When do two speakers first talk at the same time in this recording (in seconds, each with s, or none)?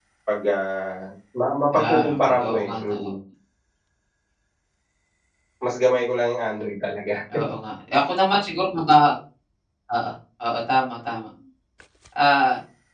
1.7 s